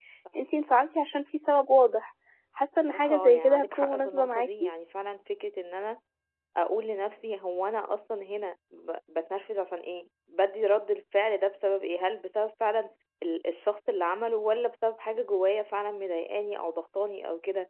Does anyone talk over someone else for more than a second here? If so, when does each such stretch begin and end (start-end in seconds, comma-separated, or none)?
2.9-4.5